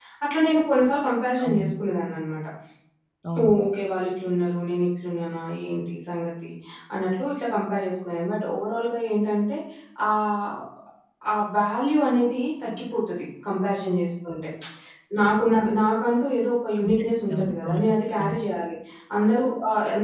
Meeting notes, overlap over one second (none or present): present